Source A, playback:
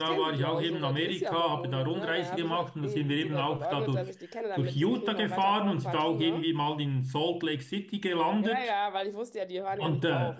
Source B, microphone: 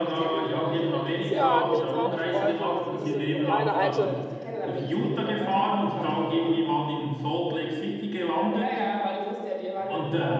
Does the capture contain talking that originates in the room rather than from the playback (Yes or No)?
Yes